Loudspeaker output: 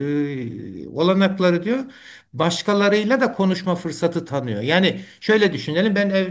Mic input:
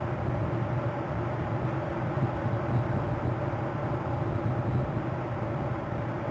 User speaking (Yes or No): No